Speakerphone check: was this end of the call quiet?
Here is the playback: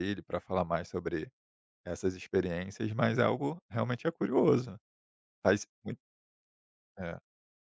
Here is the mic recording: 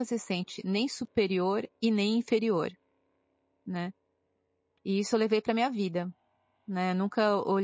No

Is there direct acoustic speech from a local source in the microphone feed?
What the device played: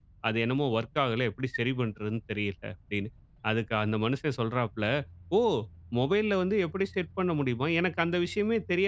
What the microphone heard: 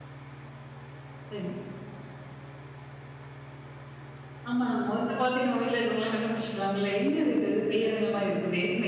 Yes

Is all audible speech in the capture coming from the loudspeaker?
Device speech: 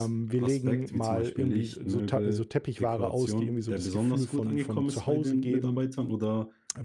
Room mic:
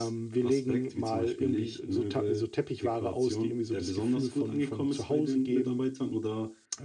Yes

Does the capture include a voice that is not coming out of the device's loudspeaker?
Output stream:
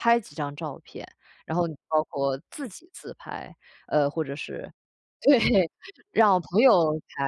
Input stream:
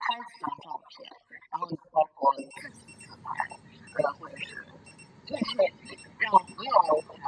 No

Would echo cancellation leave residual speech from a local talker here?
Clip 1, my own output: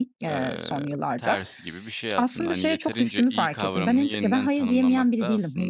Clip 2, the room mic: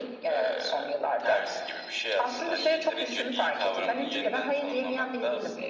No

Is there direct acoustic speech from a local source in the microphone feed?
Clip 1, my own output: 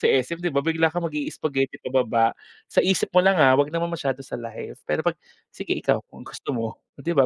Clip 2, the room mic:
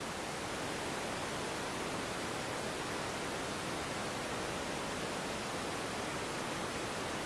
No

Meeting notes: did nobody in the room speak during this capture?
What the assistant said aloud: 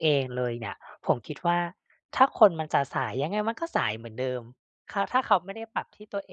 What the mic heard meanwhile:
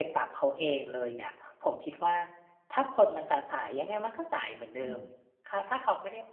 No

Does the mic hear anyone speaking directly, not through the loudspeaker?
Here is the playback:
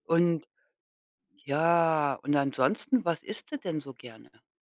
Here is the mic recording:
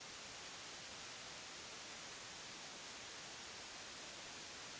No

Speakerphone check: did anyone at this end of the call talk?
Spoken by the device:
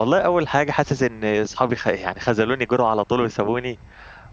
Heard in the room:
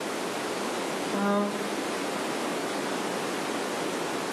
Yes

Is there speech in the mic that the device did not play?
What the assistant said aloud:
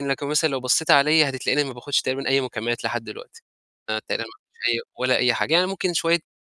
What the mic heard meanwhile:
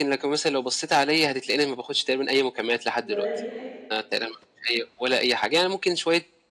Yes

